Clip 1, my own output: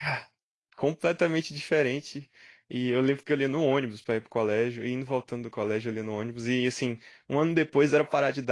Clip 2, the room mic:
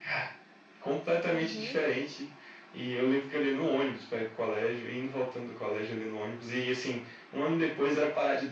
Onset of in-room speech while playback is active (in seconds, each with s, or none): 1.3 s